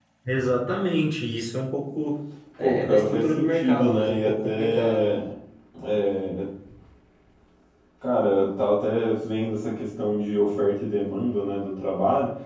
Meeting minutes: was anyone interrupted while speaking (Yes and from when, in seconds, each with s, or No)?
Yes, from 2.6 s